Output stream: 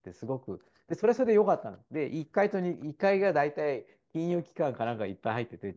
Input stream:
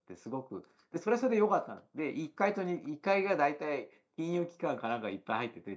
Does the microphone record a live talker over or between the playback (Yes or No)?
No